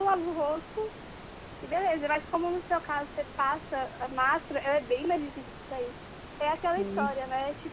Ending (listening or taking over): listening